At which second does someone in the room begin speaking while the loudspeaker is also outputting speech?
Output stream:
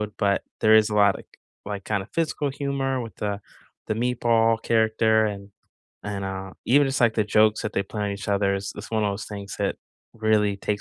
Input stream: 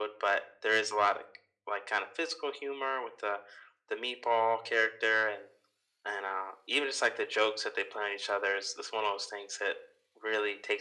none

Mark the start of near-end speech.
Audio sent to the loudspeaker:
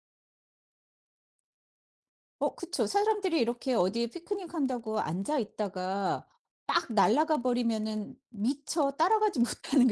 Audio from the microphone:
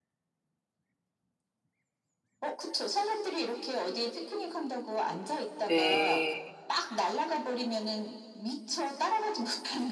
5.7 s

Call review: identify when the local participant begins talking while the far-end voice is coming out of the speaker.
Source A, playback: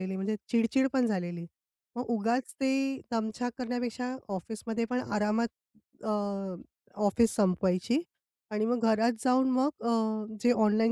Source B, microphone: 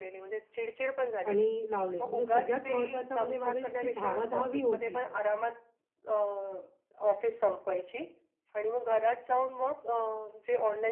1.3 s

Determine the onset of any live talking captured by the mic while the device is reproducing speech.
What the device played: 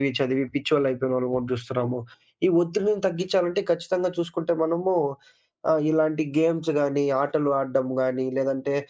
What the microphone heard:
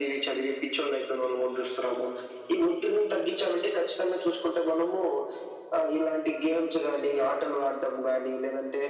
none

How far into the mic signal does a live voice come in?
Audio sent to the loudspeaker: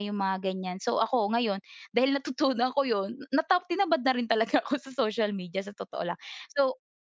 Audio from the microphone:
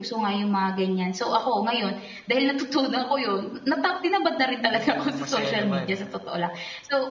4.7 s

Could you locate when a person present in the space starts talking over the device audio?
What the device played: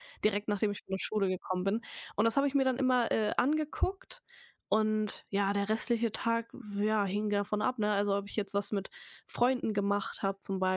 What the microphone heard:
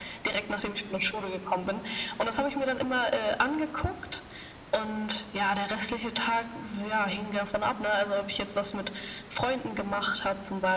none

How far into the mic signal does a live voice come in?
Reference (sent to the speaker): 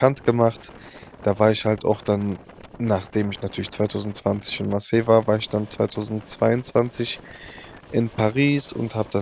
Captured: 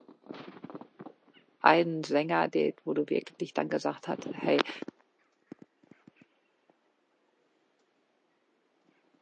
1.6 s

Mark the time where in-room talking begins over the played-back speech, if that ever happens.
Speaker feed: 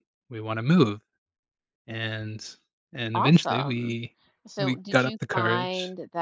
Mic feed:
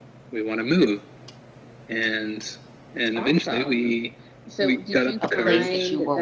5.2 s

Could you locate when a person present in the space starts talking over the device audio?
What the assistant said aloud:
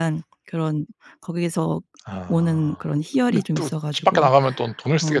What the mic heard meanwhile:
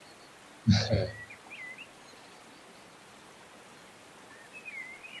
0.7 s

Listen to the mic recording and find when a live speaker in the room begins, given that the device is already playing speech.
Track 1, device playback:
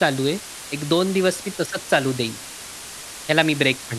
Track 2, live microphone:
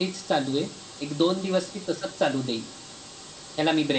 none

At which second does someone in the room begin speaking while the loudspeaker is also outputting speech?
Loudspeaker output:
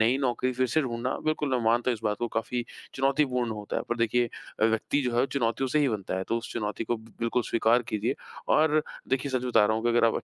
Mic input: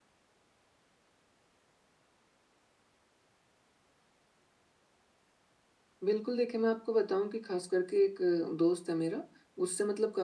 6.0 s

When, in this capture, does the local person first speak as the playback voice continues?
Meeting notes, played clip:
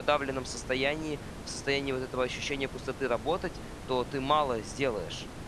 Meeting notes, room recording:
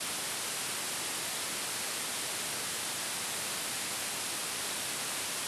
none

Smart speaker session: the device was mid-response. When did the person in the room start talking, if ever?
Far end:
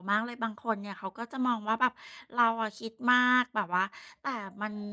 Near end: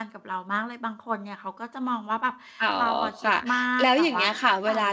2.6 s

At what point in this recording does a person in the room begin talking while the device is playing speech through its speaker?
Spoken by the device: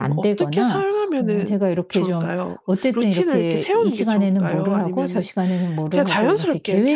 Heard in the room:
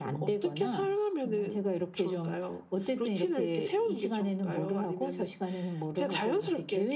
none

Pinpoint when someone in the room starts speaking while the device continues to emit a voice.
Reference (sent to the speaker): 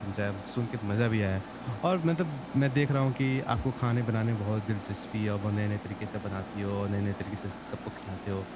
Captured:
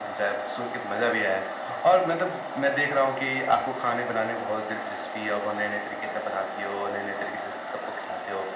none

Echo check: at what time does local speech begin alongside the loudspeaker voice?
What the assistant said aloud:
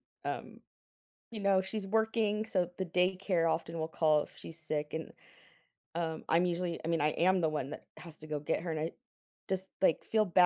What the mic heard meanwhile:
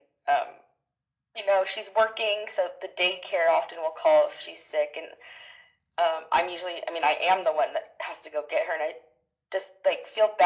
none

